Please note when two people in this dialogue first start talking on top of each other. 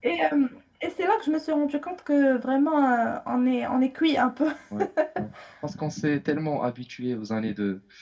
none

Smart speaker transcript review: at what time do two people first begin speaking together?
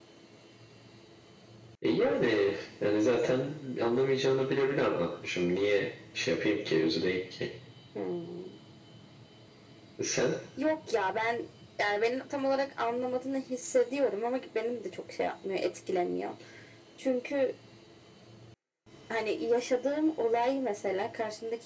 none

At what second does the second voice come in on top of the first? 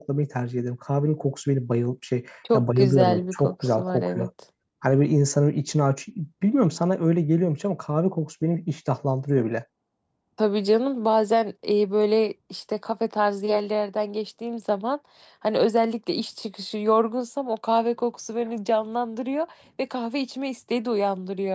2.4 s

